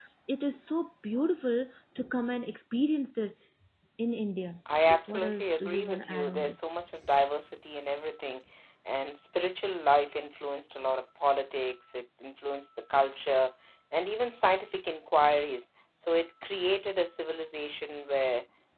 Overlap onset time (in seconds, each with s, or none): 5.1 s